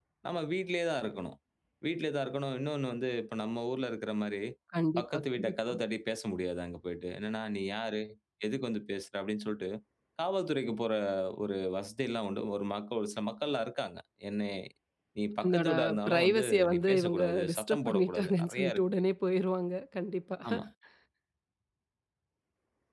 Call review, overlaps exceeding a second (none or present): present